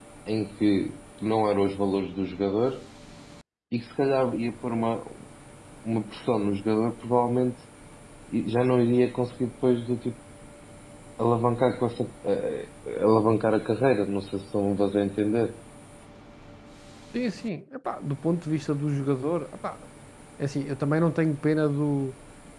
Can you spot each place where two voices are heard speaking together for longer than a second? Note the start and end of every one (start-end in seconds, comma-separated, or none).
none